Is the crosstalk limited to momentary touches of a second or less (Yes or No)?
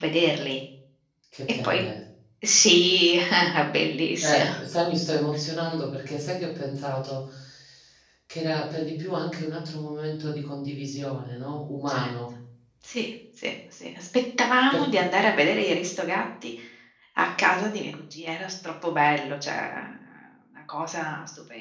Yes